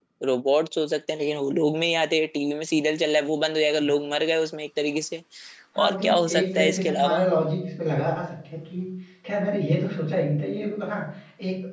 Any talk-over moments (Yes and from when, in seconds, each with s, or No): Yes, from 5.8 s